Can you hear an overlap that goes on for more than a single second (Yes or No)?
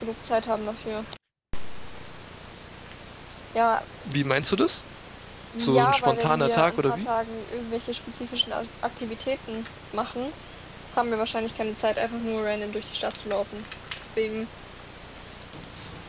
Yes